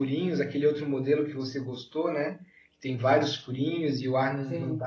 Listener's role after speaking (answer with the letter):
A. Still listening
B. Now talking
A